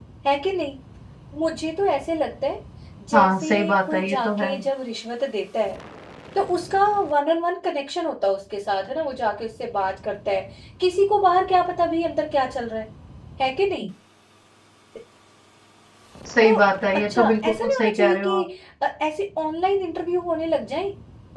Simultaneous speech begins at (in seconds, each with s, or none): 3.1 s